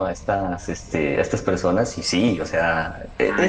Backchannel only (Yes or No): Yes